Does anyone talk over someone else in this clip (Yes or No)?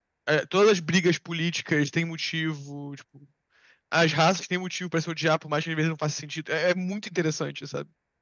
No